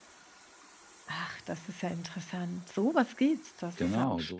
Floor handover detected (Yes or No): Yes